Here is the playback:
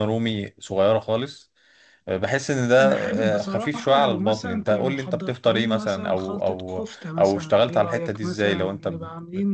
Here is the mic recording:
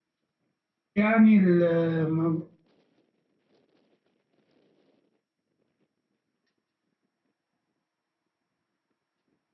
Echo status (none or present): none